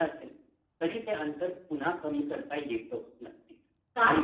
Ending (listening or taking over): taking over